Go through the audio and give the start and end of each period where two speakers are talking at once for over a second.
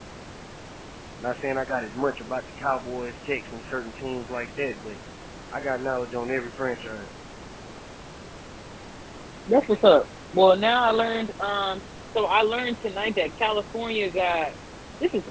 none

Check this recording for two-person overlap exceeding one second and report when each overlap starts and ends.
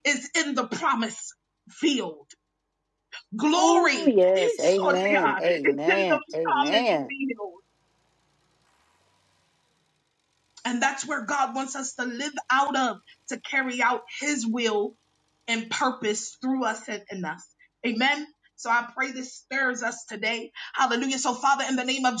3.6-7.1

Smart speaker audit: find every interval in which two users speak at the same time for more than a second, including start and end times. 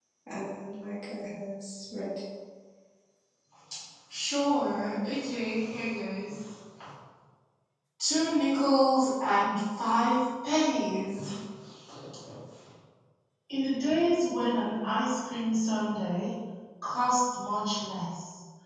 none

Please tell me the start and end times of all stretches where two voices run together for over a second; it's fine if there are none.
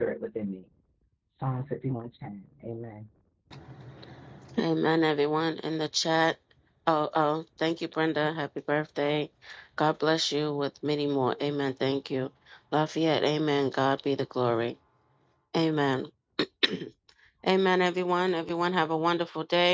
none

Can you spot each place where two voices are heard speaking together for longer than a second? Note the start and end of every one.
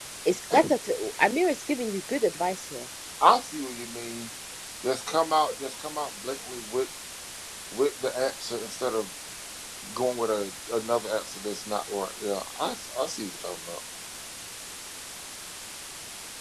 none

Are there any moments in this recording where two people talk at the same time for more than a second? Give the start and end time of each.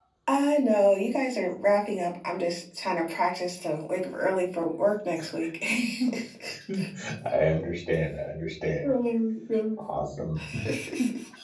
none

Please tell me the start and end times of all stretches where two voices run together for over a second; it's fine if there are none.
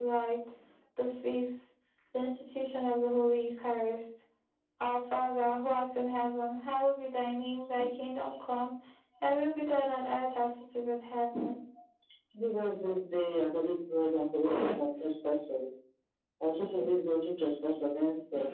none

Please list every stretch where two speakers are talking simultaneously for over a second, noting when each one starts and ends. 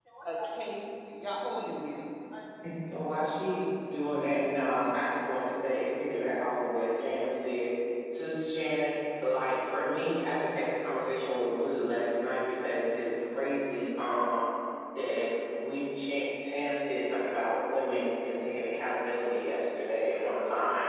none

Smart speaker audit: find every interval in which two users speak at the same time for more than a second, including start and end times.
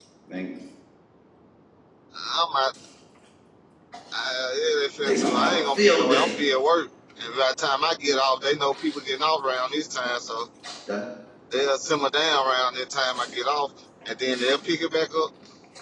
5.0-6.4

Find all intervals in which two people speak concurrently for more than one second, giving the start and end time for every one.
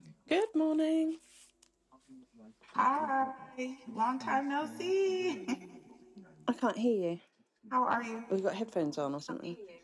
none

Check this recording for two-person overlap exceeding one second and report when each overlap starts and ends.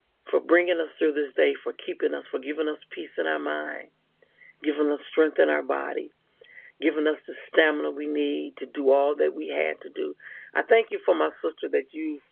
none

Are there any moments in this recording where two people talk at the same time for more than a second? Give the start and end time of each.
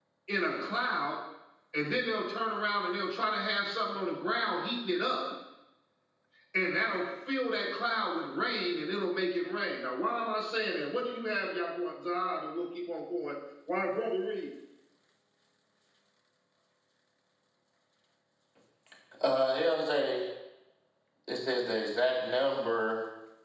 none

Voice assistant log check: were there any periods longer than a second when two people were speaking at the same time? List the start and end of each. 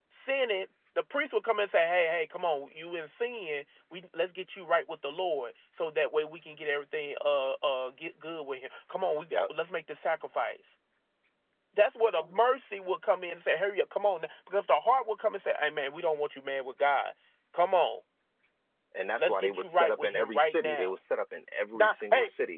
19.2-21.0

